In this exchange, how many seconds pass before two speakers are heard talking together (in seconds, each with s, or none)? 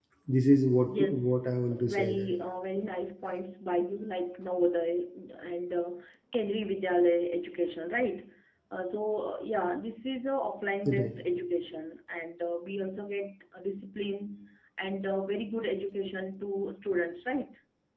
0.8 s